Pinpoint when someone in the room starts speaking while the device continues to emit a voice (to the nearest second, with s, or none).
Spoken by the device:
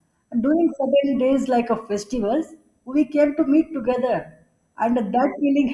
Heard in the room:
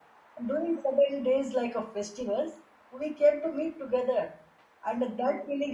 none